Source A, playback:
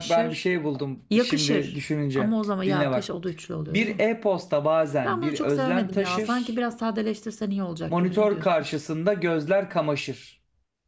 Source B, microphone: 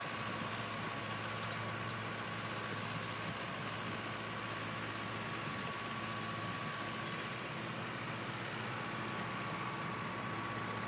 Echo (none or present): none